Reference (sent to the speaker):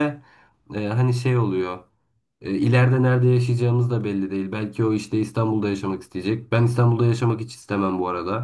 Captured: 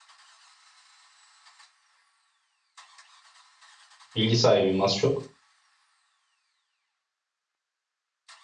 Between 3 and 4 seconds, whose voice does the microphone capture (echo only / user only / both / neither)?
neither